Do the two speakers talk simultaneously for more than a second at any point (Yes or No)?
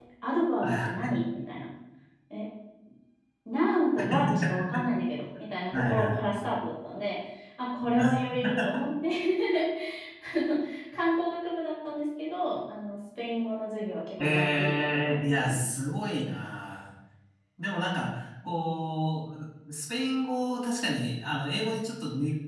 Yes